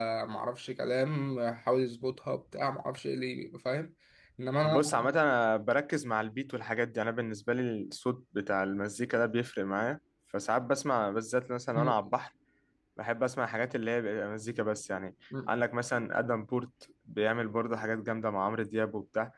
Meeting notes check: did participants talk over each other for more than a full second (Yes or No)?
No